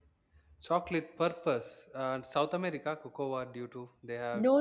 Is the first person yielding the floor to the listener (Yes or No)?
Yes